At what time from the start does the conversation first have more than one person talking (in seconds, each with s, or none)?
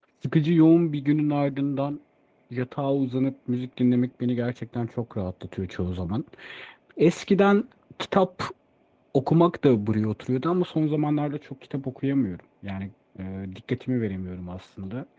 none